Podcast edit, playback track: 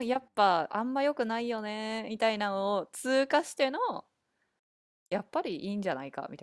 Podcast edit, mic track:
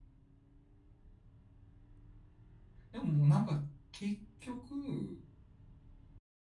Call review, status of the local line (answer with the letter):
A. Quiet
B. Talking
B